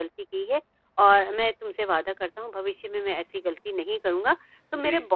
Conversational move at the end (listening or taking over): listening